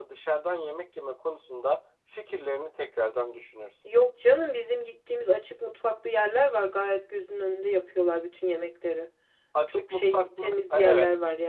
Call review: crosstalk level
present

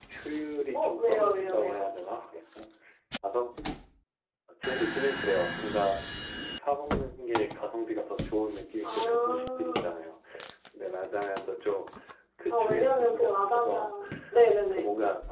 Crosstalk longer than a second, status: present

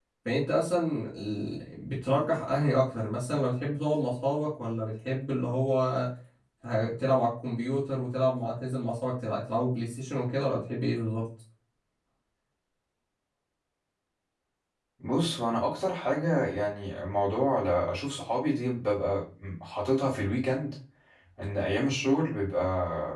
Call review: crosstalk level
none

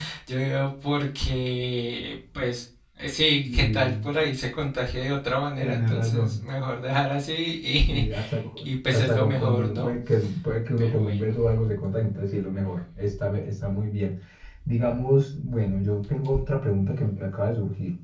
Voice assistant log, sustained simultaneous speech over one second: present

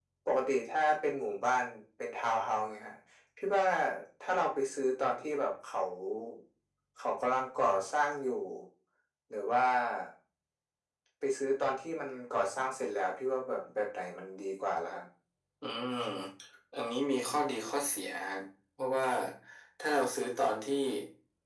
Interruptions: none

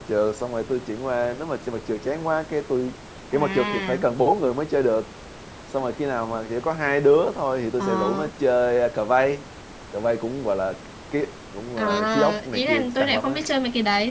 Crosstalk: present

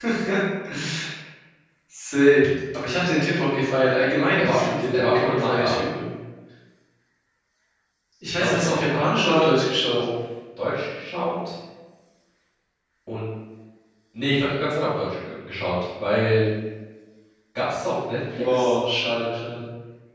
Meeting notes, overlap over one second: present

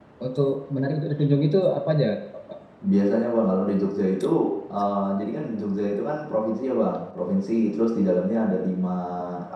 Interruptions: none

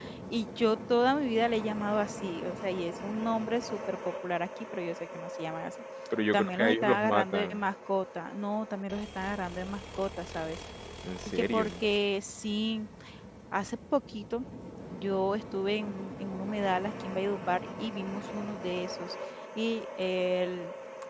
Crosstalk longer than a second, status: present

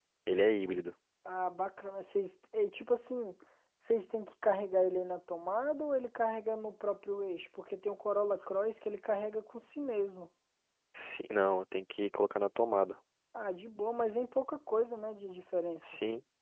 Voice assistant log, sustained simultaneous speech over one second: none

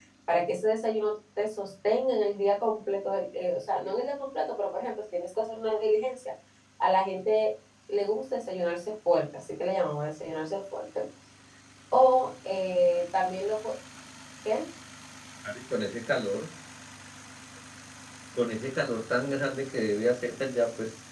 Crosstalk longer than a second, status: none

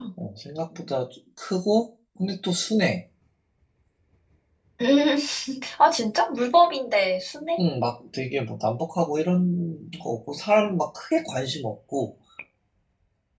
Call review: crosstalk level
none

